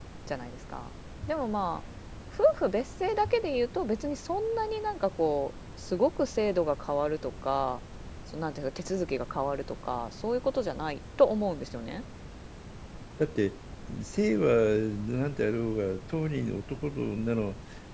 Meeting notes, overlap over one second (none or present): none